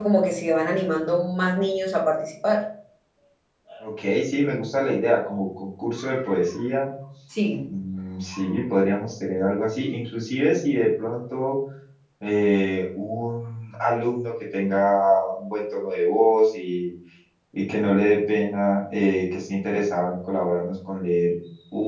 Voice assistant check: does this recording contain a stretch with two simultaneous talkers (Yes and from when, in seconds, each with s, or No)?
No